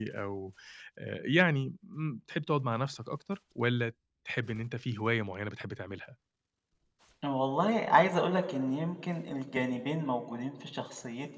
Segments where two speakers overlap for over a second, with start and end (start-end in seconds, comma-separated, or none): none